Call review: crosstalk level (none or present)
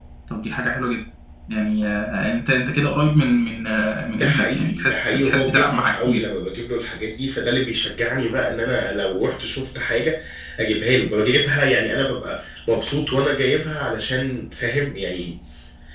present